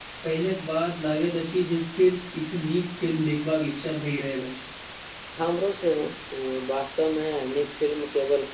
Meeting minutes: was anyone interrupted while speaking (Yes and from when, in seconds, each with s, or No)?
No